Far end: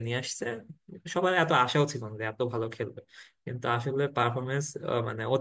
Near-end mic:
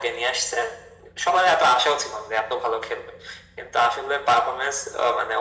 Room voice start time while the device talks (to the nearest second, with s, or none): none